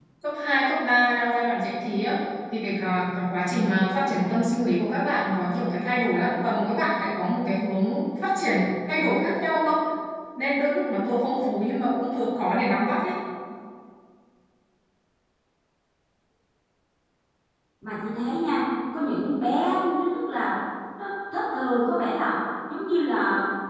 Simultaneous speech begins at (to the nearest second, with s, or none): none